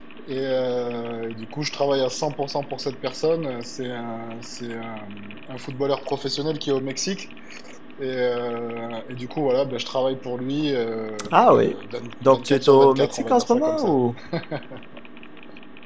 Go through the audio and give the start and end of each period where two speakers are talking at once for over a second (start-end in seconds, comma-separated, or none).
12.2-14.0